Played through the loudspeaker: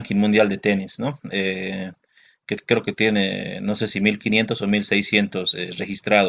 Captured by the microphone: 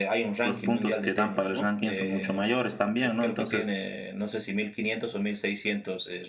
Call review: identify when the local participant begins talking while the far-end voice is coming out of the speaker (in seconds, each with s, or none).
0.4 s